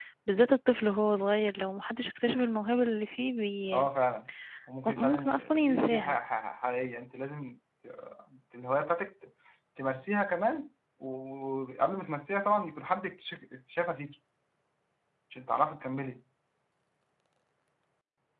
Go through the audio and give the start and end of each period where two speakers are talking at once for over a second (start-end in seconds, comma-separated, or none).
5.0-6.2